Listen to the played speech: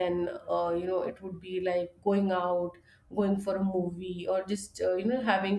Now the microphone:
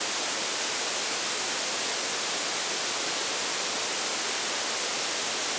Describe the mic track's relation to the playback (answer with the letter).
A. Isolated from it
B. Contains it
A